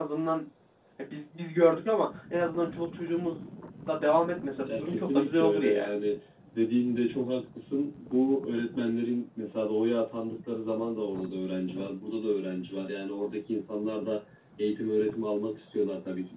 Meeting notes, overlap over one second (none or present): present